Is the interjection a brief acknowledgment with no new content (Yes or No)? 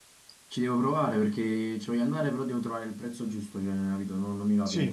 No